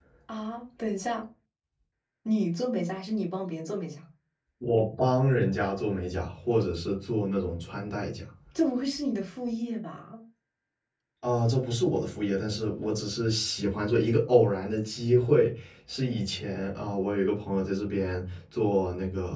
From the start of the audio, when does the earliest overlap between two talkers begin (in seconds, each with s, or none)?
none